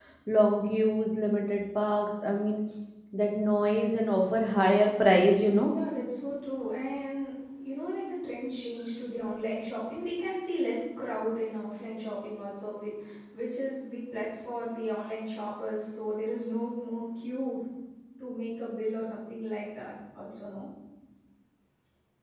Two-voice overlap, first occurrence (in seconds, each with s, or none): none